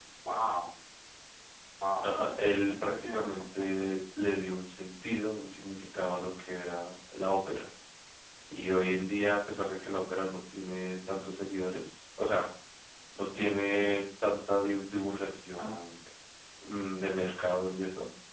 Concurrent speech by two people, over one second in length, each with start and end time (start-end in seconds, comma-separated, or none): 2.6-3.9